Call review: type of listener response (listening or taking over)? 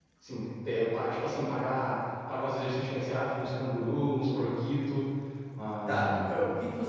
taking over